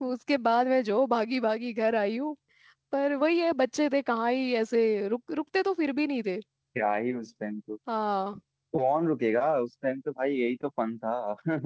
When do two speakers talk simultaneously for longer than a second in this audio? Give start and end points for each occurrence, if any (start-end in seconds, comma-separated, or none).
none